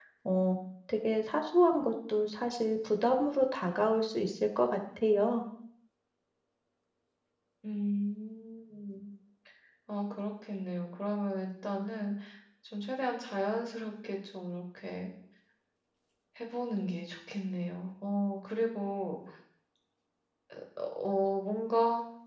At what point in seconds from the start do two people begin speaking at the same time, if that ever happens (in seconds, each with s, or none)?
none